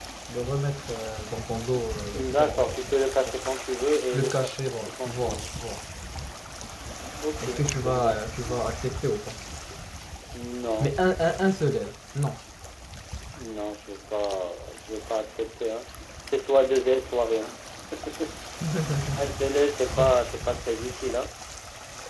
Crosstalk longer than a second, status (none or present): present